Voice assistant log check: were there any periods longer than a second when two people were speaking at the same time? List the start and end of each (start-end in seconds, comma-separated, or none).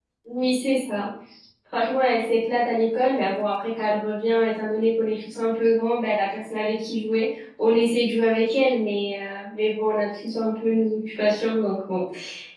none